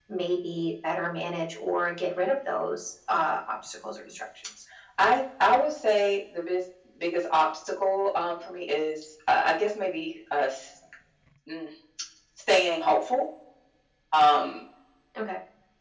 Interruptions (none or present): none